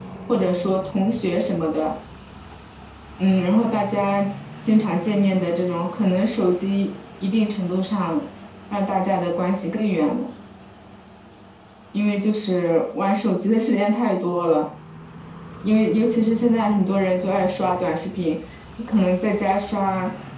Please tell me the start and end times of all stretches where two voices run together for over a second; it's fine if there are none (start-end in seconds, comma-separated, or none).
none